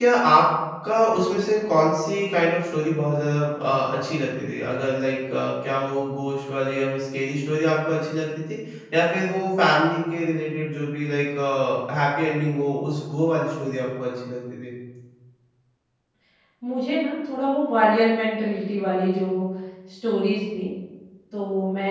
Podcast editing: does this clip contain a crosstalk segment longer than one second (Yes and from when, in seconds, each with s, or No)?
No